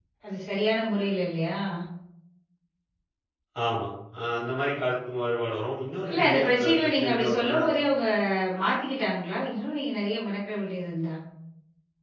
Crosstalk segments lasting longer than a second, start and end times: 6.1-7.6

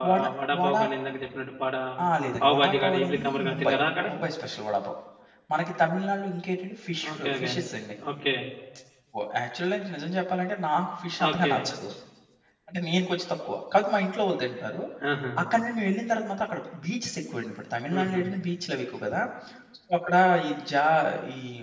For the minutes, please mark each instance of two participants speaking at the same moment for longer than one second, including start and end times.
2.4-3.7

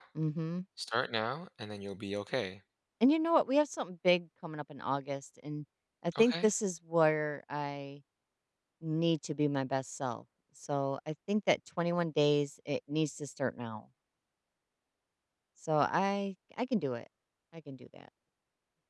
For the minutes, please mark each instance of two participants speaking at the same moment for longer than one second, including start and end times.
none

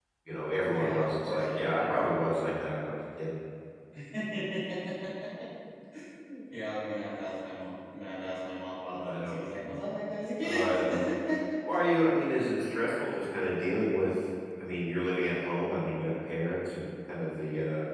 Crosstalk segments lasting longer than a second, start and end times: 0.6-1.8

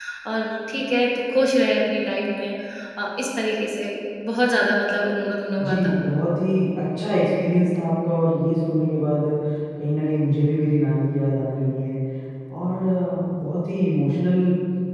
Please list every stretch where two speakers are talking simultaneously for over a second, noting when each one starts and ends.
none

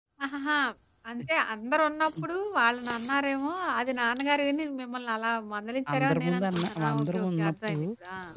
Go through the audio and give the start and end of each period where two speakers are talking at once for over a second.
5.9-7.8

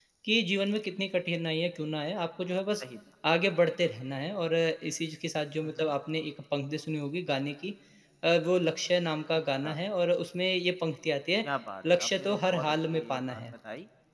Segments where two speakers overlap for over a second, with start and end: 11.9-13.4

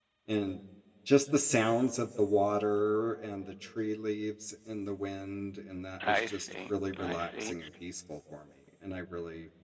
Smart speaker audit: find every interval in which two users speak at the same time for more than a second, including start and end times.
6.0-7.5

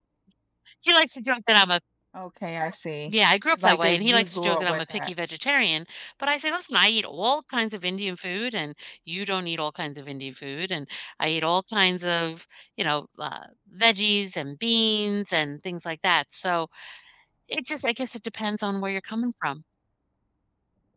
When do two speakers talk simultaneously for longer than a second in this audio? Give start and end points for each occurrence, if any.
3.6-5.1

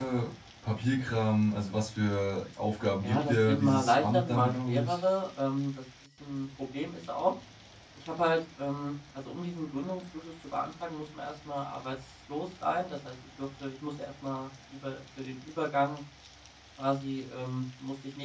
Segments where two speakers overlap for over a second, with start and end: 3.0-5.0

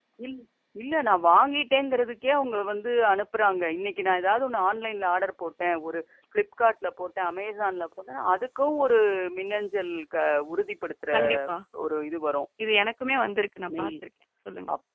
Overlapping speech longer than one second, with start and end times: none

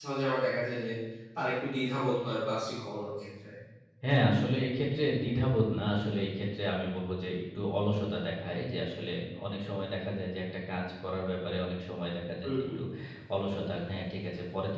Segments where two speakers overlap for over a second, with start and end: none

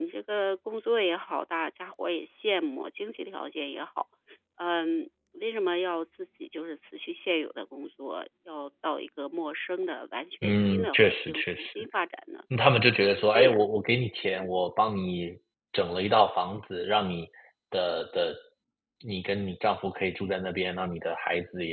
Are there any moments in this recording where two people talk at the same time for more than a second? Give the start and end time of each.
10.4-11.7

